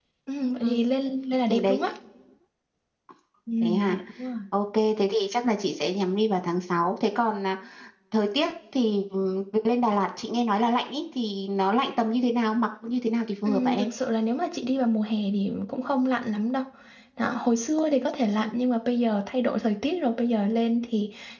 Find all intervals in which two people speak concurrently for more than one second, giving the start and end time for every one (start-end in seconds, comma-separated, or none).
none